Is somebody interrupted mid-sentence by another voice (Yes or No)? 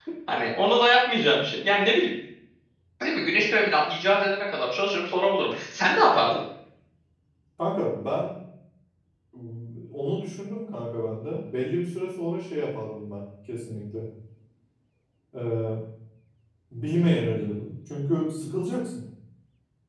No